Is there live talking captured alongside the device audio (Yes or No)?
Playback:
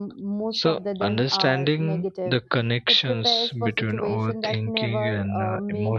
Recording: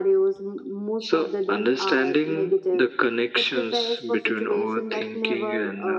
No